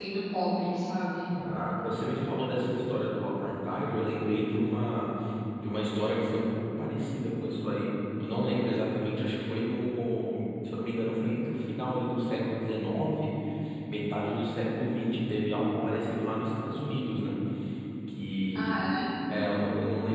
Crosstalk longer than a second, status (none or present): none